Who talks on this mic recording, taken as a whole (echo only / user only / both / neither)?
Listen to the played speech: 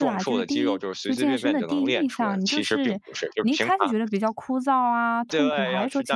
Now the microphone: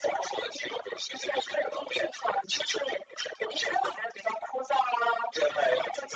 echo only